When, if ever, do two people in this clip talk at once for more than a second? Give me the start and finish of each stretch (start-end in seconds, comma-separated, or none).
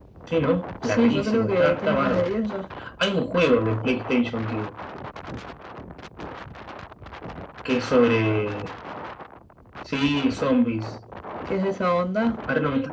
0.8-2.4